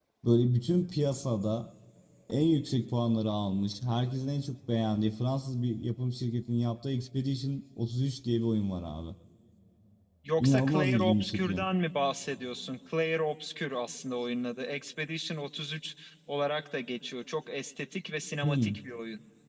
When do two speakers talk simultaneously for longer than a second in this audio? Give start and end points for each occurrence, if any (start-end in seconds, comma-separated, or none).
10.4-11.6